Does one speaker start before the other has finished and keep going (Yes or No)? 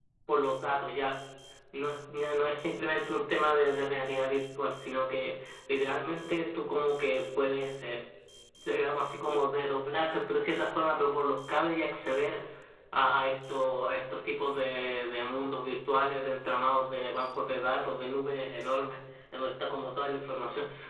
No